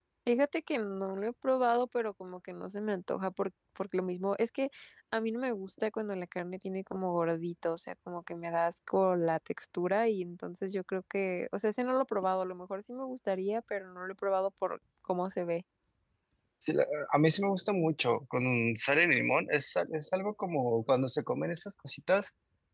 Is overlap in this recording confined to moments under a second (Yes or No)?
Yes